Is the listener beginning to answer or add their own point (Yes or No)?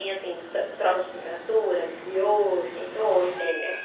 Yes